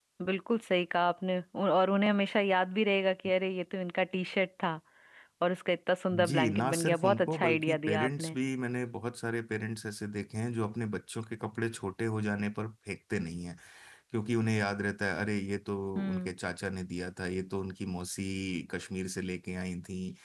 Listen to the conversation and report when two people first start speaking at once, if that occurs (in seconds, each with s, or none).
6.3 s